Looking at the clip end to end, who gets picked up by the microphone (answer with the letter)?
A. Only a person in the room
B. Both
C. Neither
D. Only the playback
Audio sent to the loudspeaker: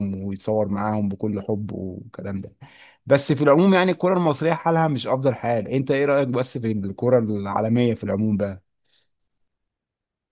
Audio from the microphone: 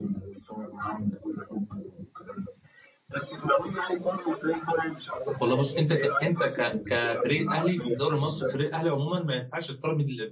B